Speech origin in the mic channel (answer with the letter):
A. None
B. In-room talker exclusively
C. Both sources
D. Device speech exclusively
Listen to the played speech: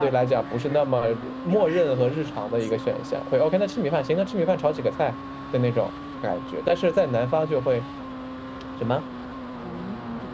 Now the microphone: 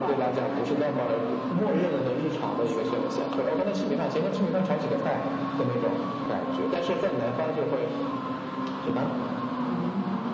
D